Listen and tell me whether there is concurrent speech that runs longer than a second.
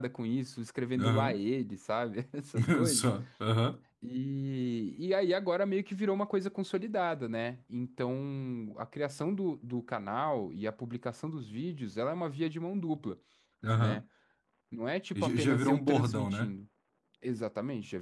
Yes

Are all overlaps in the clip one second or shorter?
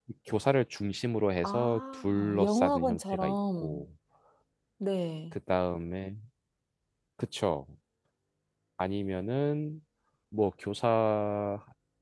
No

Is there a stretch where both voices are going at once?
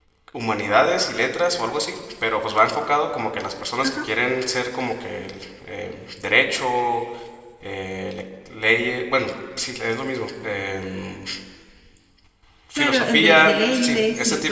Yes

